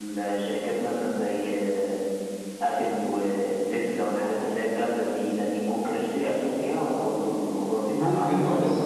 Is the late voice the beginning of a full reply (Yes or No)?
Yes